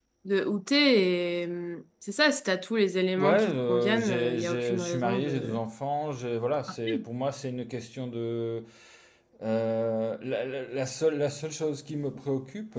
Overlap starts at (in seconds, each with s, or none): 3.2 s